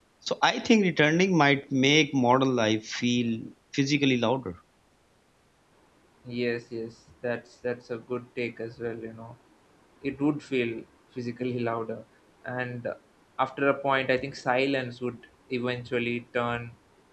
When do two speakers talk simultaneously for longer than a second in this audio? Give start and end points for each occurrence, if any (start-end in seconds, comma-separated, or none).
none